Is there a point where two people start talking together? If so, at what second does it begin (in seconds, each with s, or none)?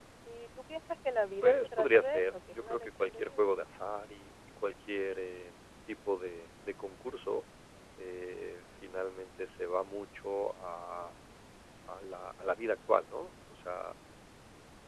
1.4 s